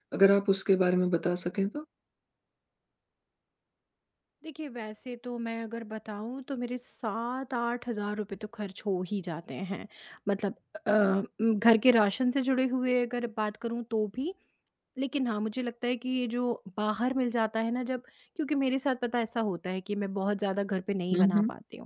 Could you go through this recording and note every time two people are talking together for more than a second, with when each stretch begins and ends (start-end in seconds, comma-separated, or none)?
none